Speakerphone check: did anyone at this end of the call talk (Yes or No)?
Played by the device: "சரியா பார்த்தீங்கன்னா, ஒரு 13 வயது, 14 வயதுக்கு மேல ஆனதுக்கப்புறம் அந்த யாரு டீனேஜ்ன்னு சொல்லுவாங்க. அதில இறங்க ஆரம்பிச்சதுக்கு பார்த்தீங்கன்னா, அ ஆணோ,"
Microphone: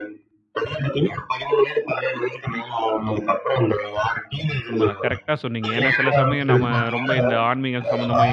Yes